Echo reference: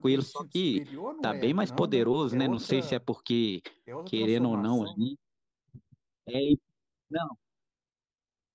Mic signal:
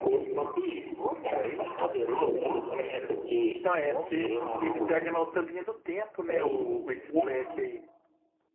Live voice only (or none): Então, é porque ele pega na outra linha do tempo, né? O, o- esse Black aí.